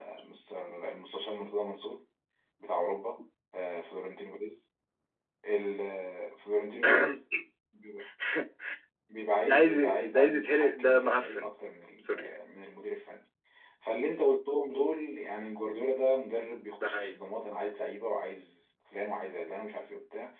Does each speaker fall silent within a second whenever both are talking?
No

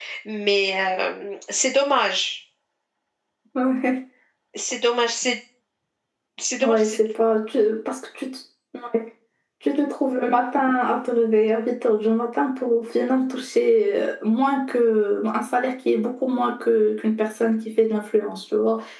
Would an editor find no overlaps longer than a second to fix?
Yes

